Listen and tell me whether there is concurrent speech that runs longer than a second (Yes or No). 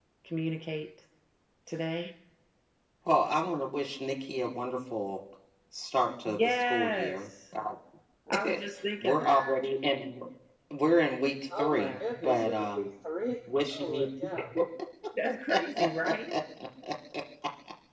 Yes